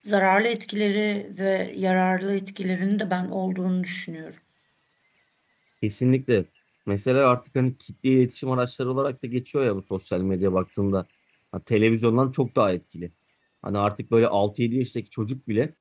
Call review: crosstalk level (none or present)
none